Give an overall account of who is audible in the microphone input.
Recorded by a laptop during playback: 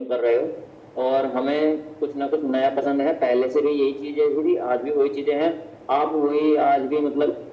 echo only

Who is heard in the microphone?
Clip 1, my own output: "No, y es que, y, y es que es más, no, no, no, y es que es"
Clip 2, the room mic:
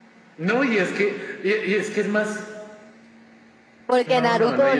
both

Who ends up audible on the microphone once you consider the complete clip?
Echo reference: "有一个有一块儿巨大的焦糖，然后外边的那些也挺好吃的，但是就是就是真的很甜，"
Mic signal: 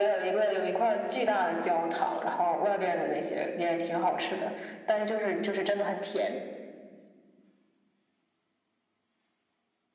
echo only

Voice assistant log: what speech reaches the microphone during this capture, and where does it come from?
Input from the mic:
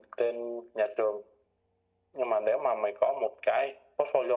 echo only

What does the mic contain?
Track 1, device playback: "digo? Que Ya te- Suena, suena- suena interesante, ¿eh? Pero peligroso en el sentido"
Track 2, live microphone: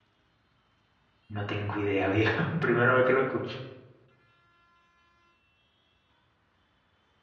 user only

